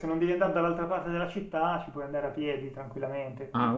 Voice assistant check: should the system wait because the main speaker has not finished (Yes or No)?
Yes